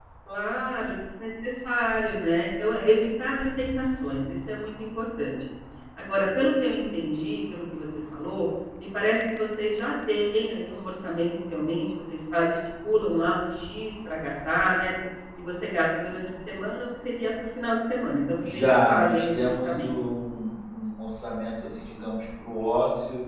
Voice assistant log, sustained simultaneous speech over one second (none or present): present